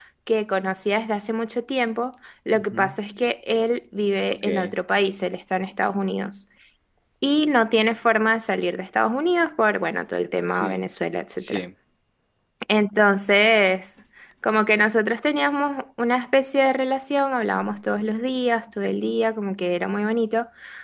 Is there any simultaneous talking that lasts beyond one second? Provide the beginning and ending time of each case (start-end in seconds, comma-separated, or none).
none